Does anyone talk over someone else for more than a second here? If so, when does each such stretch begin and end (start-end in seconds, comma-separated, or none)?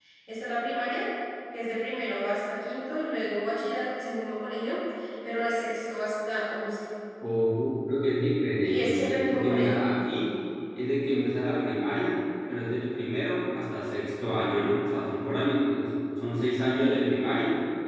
8.5-9.8